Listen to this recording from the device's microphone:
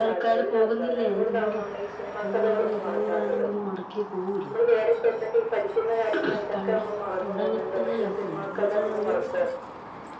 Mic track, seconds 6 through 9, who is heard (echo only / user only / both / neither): both